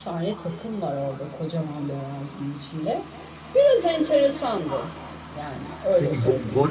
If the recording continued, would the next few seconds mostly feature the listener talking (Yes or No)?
Yes